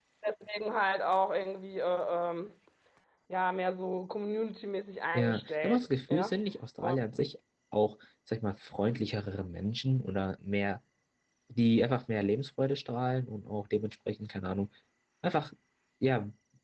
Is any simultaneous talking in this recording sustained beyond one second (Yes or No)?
Yes